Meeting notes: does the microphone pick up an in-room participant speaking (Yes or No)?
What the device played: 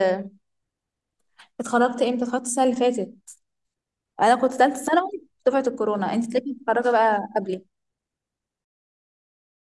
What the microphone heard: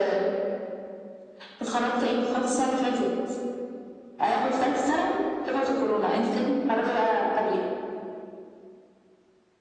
No